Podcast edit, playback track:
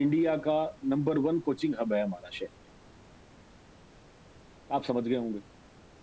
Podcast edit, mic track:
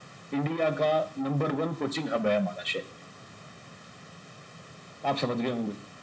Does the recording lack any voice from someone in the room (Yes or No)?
Yes